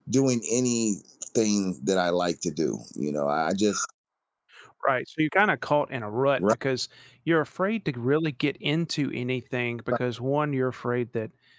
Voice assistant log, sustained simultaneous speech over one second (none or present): none